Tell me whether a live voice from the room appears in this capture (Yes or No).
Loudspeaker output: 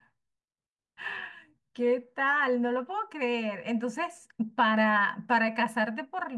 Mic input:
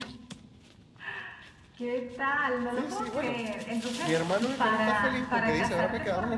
Yes